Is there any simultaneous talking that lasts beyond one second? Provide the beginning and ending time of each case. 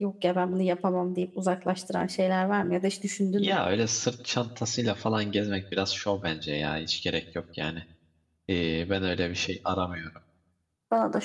none

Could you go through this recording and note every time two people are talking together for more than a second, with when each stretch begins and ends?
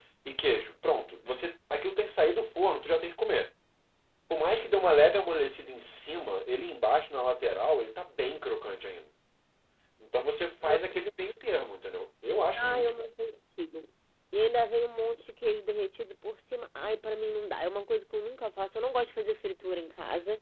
none

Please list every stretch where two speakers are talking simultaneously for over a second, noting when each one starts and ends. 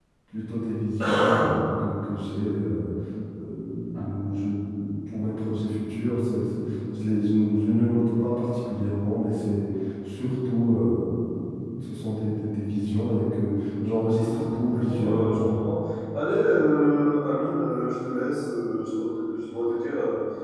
14.2-15.5

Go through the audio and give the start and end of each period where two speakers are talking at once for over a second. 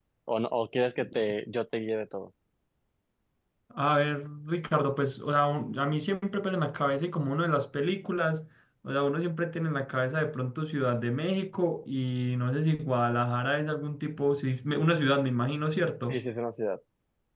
none

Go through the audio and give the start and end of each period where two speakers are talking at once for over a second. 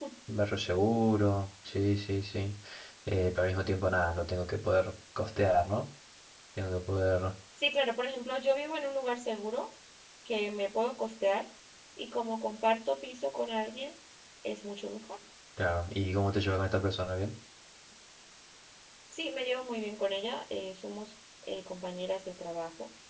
none

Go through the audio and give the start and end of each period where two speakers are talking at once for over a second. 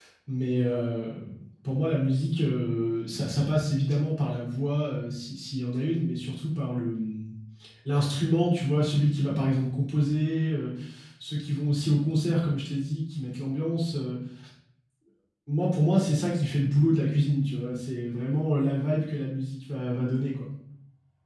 none

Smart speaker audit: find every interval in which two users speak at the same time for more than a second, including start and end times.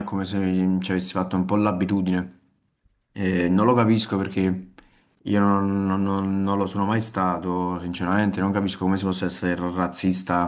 none

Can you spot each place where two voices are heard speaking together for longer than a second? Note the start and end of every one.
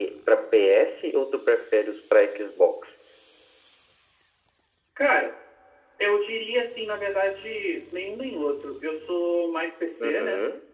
none

